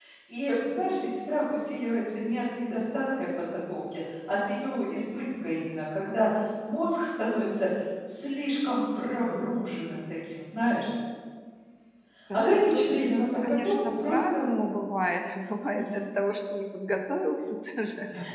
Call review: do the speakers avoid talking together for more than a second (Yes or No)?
No